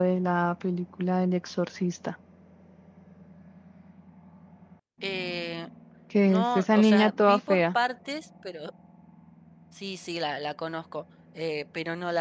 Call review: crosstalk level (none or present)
present